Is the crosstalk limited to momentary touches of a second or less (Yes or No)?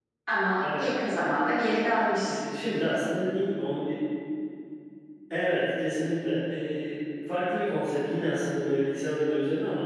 Yes